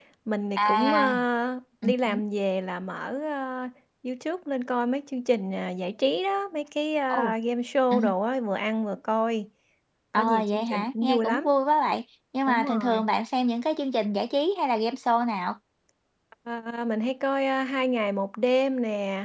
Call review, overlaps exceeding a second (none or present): present